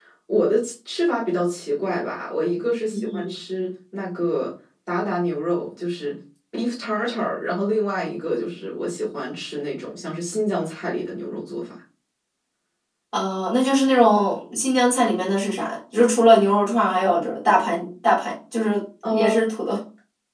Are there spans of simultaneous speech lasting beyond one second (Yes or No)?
No